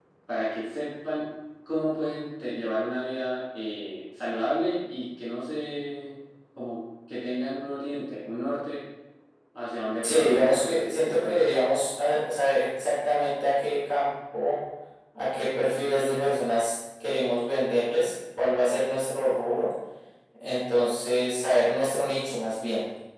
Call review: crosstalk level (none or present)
present